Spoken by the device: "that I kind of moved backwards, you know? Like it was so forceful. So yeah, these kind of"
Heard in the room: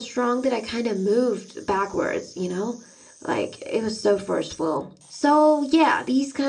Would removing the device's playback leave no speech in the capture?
Yes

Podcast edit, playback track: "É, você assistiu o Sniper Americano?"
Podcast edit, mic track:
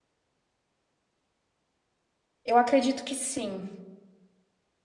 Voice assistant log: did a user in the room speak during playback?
Yes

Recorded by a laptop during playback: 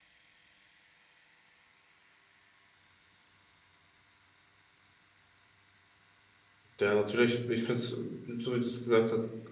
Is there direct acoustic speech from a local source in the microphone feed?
Yes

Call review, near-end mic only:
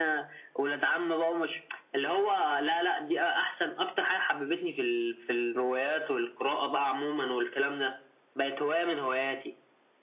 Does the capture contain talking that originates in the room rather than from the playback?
No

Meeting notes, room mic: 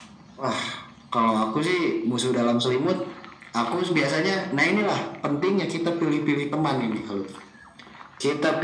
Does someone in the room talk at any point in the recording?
No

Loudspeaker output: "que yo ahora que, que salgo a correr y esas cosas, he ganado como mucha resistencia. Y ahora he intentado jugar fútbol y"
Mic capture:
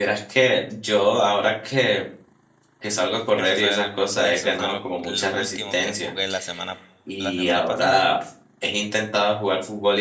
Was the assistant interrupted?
Yes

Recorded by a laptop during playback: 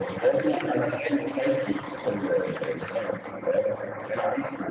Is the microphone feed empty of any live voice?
Yes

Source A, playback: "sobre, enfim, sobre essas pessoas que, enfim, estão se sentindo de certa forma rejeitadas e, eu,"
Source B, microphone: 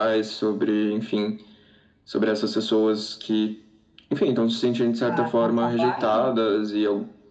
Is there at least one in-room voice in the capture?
Yes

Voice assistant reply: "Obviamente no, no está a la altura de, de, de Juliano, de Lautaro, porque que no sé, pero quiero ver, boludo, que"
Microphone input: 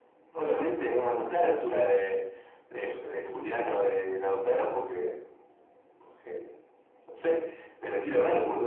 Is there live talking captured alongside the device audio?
No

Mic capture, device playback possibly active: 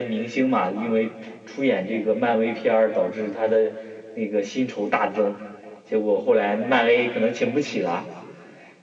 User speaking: No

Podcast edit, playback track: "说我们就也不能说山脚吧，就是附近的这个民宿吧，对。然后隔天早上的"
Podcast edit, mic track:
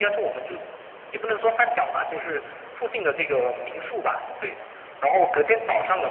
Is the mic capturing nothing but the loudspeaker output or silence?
Yes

